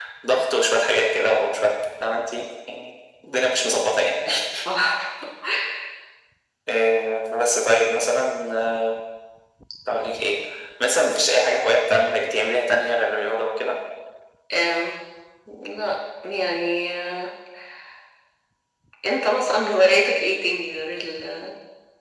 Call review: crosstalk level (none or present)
none